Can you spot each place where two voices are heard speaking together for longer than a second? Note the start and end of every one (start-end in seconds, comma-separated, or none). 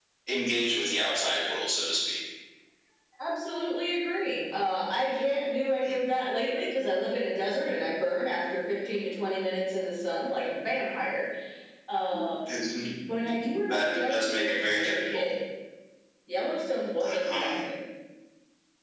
13.7-15.3